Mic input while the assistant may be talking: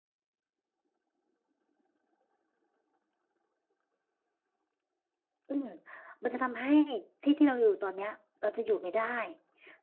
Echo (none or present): none